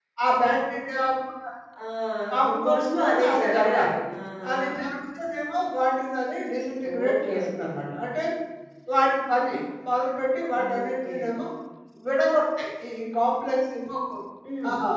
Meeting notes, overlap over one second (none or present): present